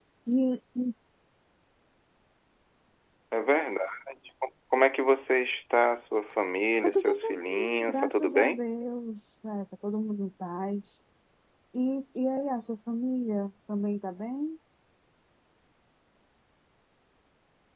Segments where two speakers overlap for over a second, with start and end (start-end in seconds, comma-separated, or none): 6.8-8.6